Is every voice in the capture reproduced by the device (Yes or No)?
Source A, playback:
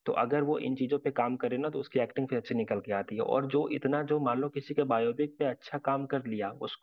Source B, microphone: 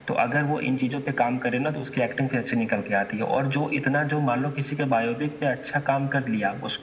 Yes